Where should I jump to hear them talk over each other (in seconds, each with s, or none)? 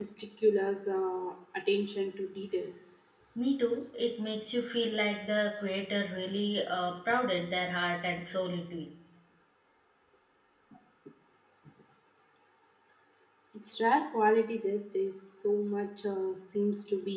none